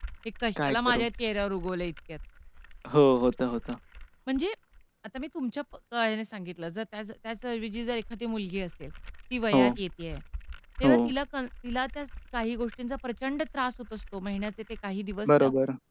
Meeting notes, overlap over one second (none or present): none